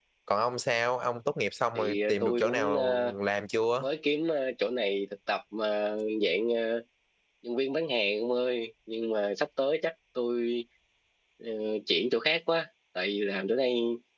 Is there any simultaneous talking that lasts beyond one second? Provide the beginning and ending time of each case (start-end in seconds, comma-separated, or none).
1.8-3.1